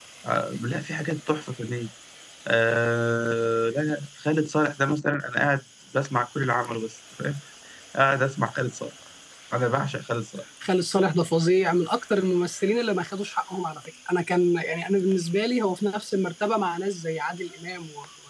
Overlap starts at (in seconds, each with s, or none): none